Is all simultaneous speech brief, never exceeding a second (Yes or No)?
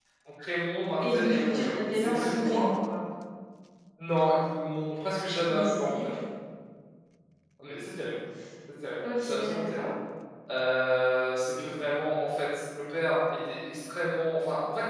No